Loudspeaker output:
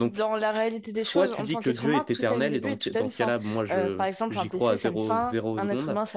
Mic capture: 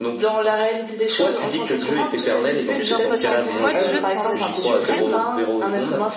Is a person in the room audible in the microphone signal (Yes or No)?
Yes